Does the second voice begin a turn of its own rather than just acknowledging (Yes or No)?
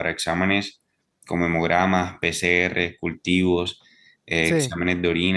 No